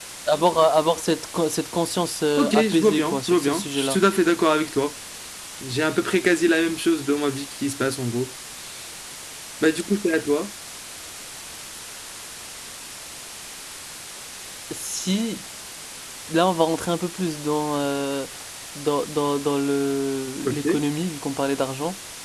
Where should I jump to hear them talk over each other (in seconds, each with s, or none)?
2.4 s